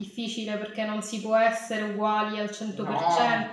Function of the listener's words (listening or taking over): listening